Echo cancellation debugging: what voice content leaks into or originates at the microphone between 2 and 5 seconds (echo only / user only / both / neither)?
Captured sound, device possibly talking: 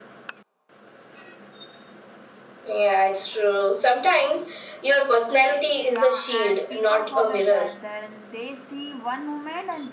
echo only